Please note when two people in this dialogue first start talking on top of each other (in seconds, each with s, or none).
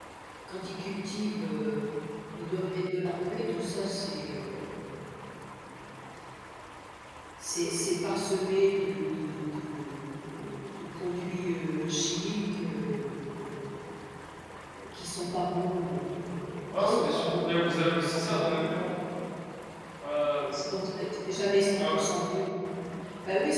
16.7 s